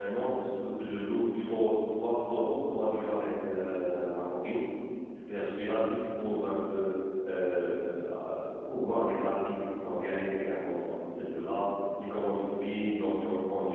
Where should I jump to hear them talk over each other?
none

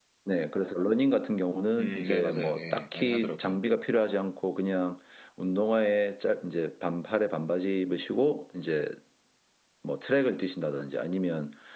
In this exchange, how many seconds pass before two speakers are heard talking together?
1.8 s

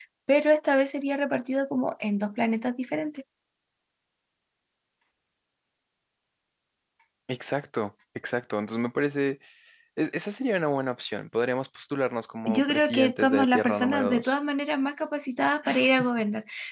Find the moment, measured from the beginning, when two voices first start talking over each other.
12.5 s

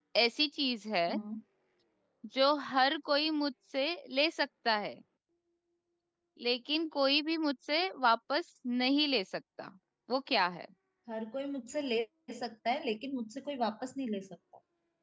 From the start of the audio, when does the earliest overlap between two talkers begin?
none

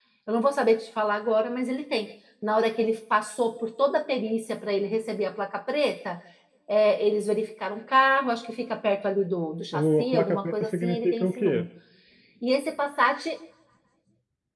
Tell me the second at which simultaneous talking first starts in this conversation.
9.7 s

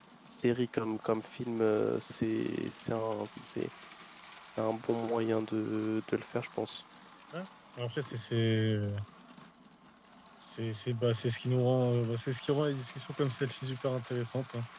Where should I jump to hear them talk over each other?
none

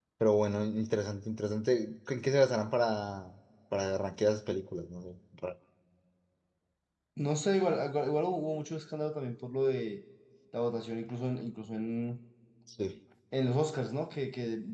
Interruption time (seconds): none

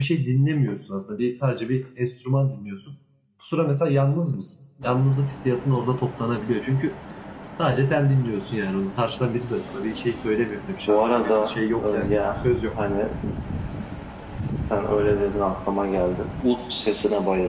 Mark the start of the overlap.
10.9 s

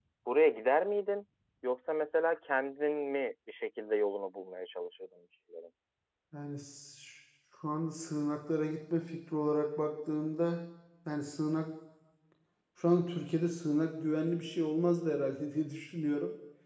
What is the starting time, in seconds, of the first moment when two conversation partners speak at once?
none

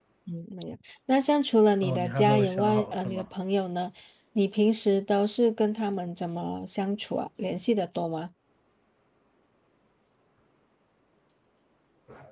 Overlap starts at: 1.8 s

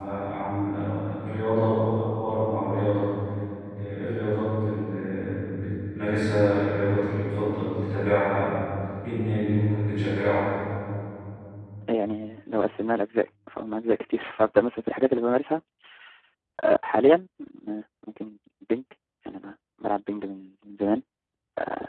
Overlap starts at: none

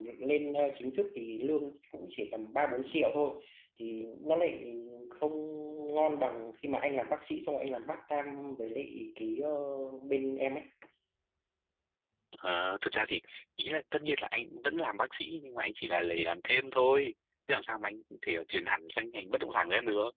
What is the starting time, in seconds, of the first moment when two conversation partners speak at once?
none

